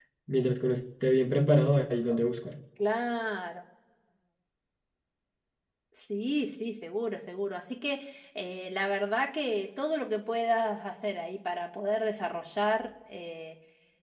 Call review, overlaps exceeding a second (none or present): none